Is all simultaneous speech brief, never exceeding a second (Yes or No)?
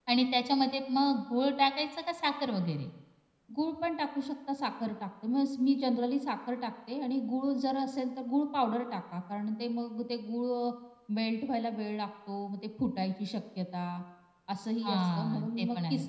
No